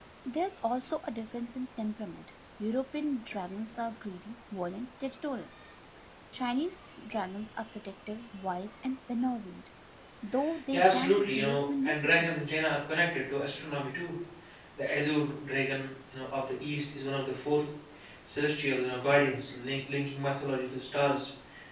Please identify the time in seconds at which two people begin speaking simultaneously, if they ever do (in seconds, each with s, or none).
10.7 s